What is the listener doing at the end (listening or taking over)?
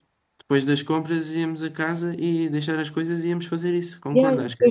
taking over